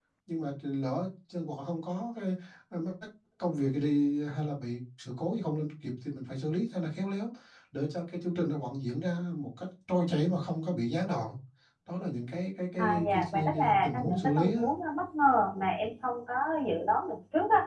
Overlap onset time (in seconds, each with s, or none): 12.8 s